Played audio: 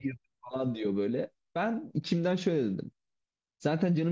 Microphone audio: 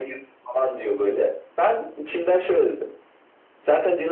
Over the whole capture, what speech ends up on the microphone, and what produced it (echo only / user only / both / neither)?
echo only